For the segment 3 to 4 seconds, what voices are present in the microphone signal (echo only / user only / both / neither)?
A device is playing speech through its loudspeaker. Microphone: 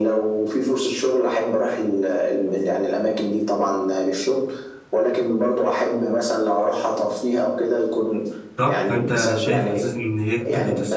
echo only